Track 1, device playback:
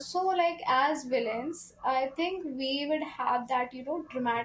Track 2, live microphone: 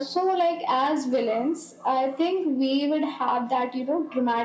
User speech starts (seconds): none

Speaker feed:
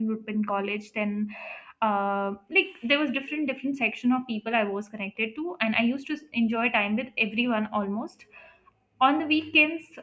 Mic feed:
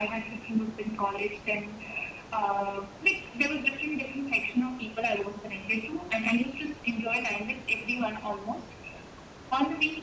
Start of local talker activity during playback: none

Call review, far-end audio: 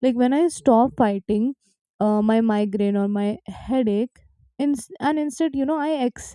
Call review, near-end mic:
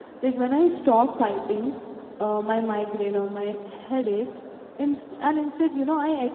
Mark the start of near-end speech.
none

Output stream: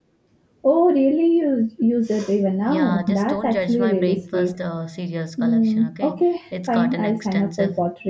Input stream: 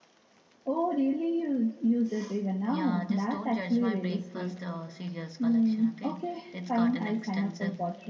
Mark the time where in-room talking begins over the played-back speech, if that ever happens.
none

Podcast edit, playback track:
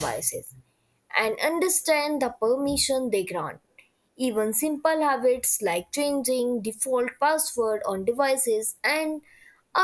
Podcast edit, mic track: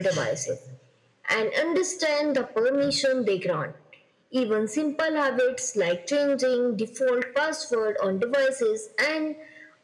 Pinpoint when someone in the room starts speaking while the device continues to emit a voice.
none

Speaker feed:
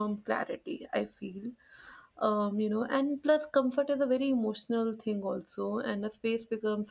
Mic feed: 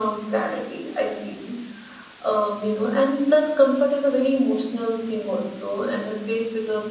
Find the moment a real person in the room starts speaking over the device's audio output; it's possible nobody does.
none

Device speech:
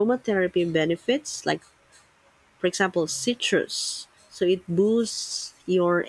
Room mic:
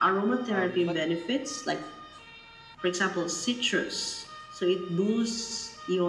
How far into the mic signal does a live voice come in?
0.5 s

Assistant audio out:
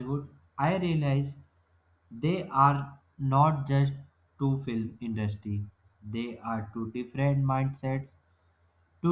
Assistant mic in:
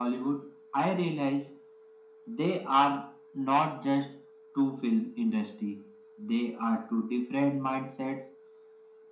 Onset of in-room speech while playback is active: none

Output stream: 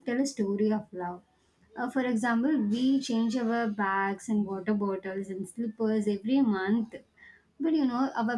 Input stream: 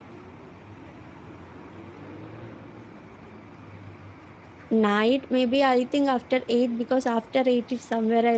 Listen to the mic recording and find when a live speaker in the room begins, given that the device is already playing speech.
4.7 s

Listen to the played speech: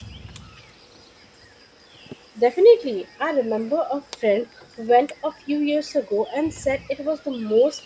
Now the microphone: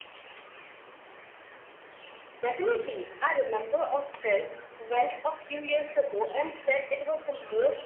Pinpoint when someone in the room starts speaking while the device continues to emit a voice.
none

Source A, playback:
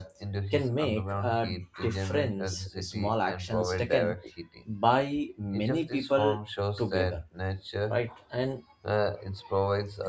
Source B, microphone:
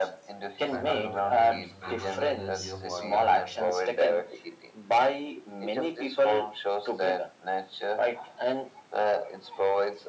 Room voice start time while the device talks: 0.7 s

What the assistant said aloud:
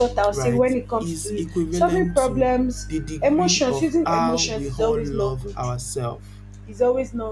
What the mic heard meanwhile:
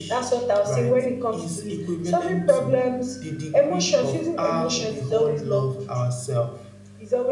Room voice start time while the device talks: none

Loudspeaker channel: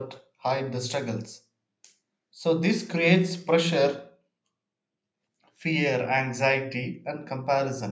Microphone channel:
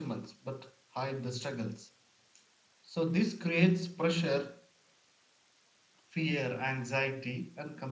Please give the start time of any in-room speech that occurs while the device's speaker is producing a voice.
none

